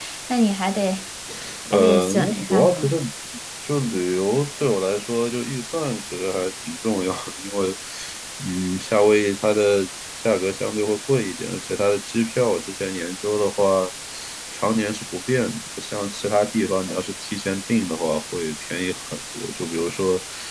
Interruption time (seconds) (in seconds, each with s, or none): 1.7 s